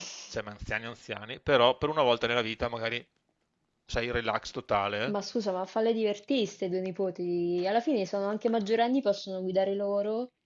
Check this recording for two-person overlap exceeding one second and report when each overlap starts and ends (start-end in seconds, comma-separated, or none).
none